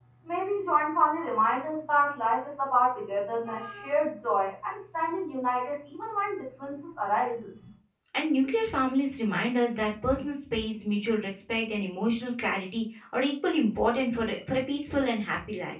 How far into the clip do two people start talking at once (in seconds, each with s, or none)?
none